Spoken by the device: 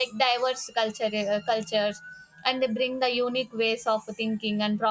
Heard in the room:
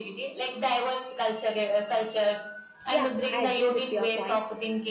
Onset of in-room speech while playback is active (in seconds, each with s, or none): 2.9 s